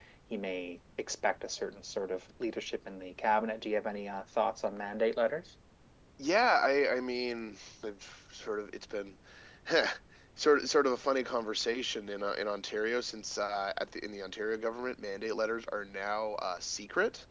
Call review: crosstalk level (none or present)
none